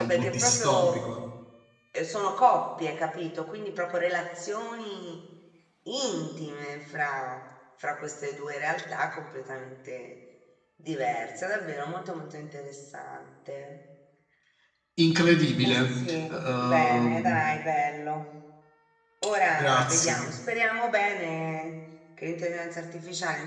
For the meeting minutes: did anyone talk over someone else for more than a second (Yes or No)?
Yes